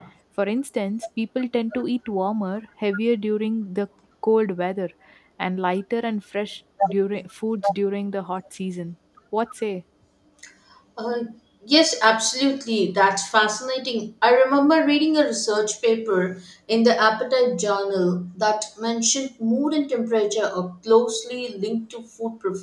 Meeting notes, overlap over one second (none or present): none